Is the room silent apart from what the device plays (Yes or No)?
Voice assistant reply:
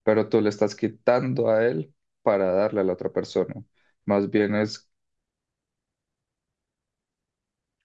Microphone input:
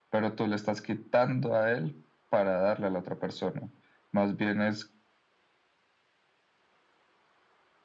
Yes